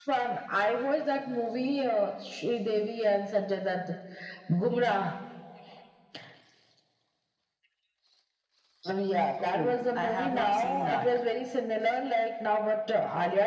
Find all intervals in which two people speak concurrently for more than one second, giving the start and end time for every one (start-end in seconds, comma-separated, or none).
9.4-11.1